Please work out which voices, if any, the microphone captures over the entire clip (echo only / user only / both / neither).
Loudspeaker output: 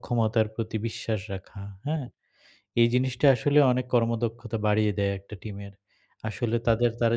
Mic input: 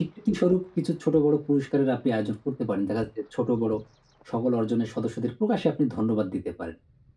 user only